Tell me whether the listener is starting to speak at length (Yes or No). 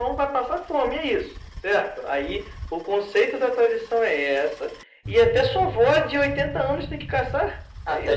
Yes